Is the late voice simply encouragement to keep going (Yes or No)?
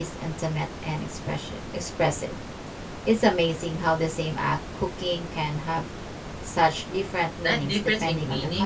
No